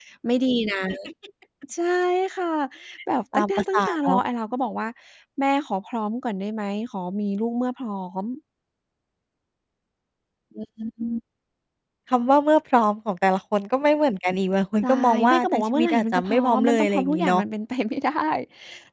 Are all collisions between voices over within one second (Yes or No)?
No